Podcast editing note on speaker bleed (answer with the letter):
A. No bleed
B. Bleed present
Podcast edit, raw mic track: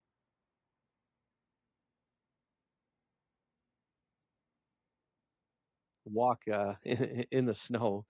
A